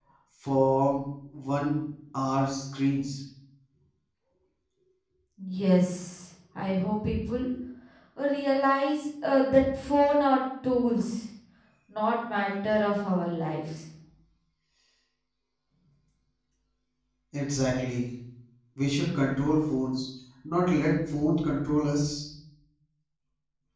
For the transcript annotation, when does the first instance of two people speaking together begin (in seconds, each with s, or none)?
none